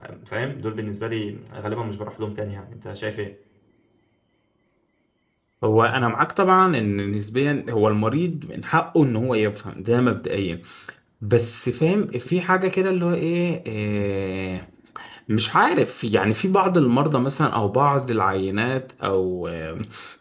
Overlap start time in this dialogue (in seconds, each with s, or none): none